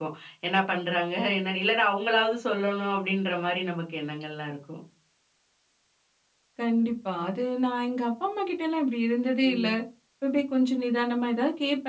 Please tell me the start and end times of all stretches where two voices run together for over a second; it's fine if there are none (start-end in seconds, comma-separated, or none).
none